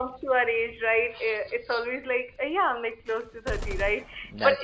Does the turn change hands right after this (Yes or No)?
No